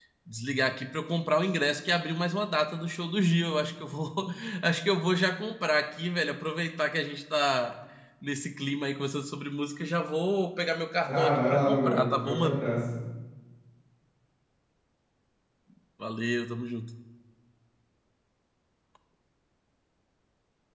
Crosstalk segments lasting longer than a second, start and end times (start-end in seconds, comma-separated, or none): 11.1-12.6